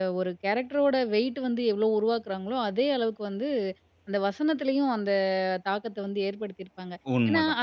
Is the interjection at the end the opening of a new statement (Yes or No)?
No